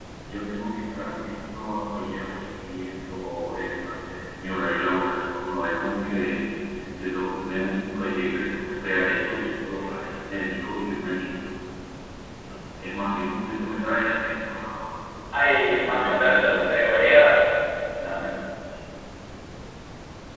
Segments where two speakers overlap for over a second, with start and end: 15.5-17.2

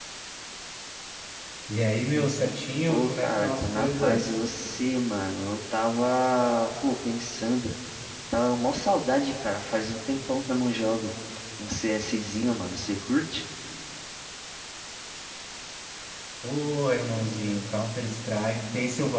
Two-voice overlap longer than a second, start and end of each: 2.9-4.4

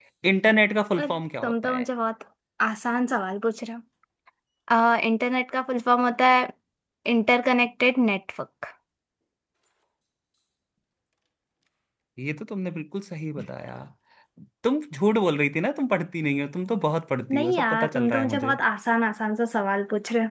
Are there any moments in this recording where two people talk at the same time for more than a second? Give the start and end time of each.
17.3-18.5

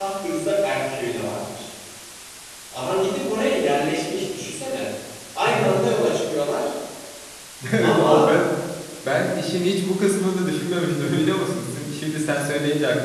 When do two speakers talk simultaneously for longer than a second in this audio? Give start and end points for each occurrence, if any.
none

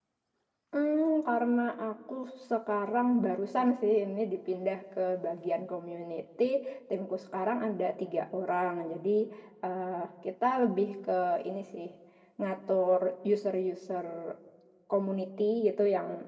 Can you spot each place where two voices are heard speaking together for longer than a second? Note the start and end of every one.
none

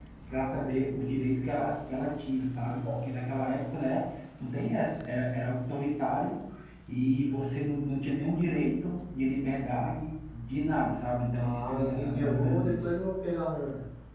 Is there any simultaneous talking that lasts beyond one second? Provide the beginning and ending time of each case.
11.3-12.9

